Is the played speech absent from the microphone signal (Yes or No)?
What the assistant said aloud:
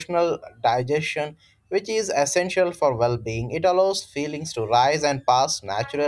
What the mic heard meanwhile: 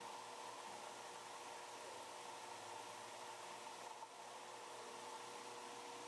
Yes